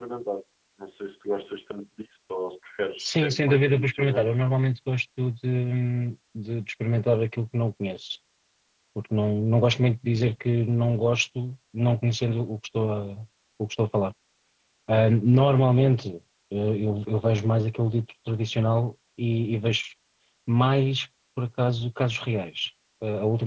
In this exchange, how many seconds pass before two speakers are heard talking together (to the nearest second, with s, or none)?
3 s